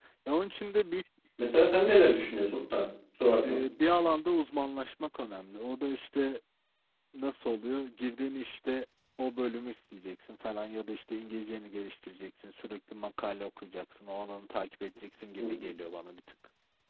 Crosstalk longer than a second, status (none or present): none